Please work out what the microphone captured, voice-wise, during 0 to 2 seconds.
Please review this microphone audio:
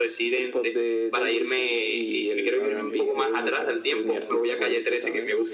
echo only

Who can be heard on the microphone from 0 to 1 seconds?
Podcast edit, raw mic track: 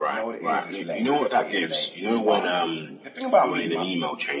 both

